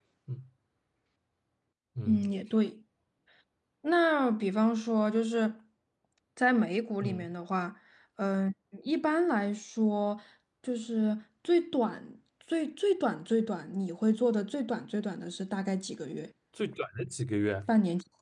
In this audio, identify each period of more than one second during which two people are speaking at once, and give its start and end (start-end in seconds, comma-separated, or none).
none